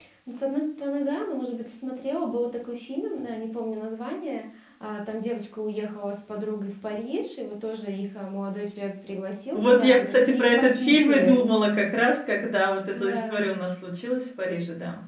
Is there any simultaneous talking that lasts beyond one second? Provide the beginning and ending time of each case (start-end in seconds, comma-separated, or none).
9.5-11.4